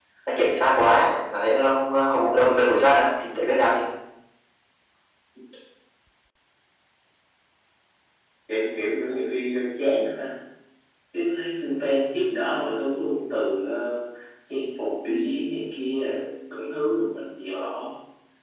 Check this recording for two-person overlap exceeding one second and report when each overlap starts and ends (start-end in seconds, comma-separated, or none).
none